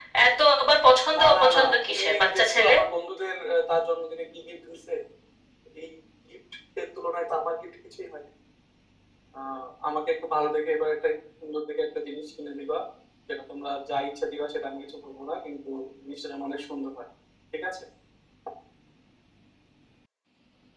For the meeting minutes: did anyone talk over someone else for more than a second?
Yes, from 1.2 s

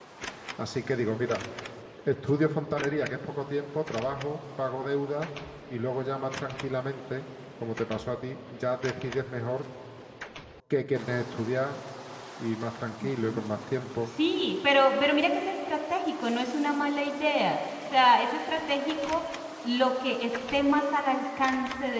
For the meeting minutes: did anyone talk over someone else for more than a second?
No

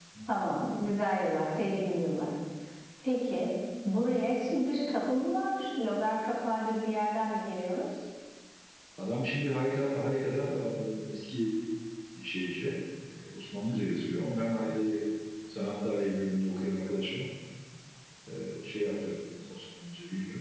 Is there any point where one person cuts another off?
No

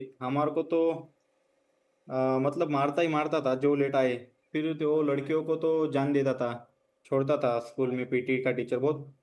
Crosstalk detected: No

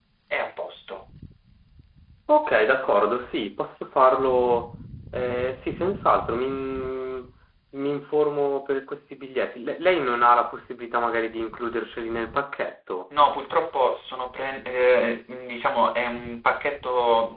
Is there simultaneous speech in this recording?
No

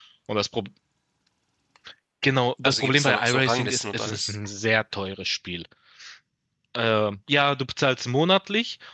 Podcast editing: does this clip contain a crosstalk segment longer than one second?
Yes, from 2.6 s

